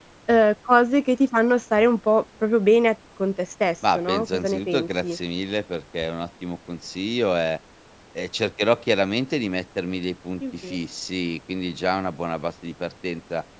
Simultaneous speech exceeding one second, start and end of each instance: 4.0-5.2

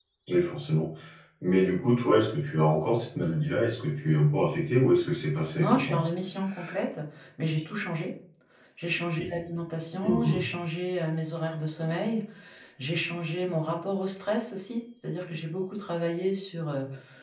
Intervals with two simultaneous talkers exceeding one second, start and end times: none

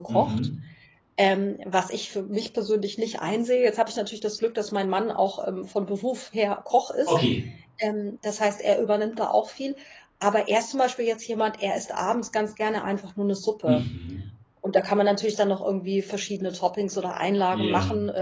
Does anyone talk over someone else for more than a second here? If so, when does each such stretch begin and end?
none

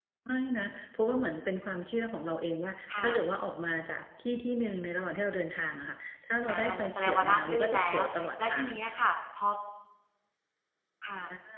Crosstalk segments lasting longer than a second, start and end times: 6.5-8.8

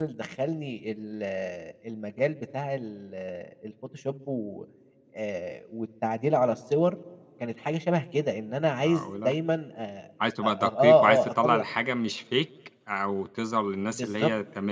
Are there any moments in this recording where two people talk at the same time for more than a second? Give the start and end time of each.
10.4-11.6

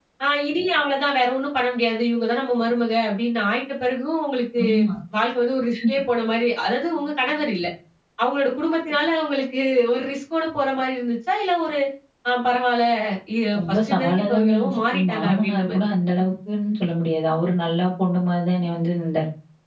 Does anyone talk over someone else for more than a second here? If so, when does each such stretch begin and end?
13.6-16.2

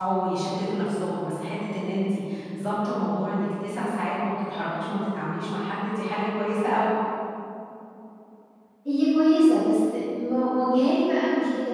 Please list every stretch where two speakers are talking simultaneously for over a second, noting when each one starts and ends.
none

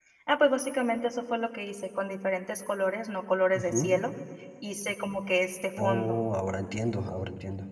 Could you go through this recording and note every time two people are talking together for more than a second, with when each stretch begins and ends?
none

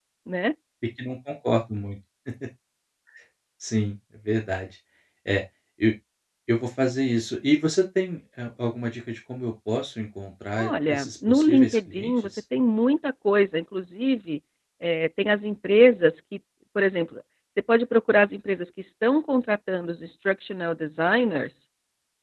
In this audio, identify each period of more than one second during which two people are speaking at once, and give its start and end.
10.6-12.3

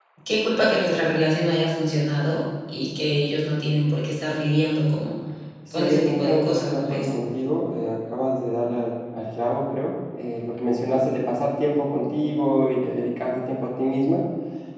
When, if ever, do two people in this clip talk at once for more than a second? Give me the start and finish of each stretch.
5.7-7.1

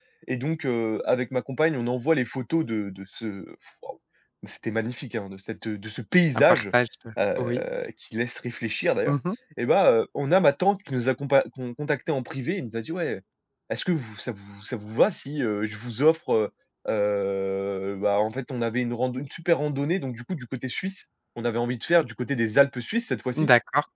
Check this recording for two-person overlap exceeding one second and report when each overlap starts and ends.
none

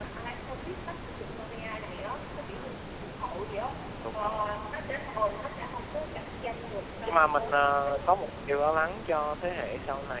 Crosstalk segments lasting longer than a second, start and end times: 7.0-8.3

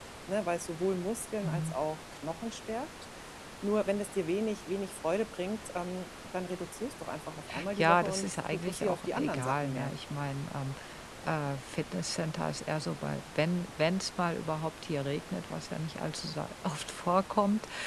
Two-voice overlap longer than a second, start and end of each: 7.8-10.0

